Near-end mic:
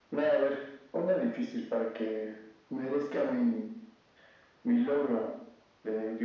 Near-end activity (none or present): none